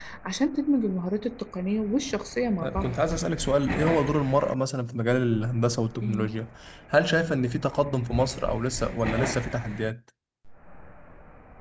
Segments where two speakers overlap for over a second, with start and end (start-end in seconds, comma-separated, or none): none